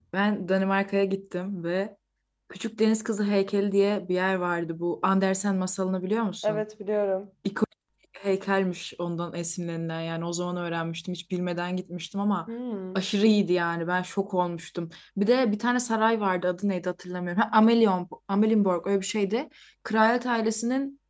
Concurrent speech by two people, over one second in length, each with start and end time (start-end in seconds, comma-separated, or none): none